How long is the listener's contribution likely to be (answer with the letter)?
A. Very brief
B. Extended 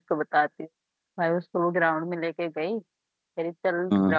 A